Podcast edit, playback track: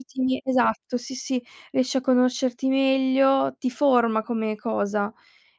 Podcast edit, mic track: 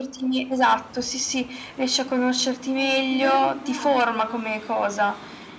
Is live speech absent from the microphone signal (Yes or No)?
No